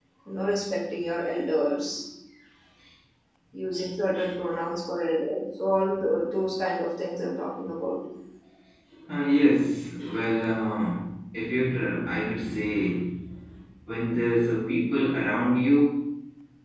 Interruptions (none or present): none